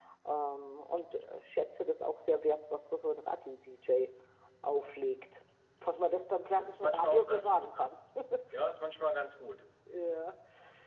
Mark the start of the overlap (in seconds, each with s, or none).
6.5 s